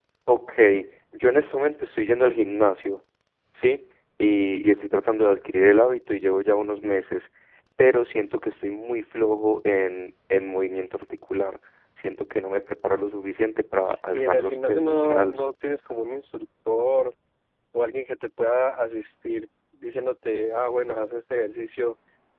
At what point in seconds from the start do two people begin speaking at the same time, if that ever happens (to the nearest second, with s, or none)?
14 s